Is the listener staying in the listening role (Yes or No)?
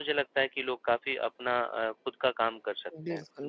No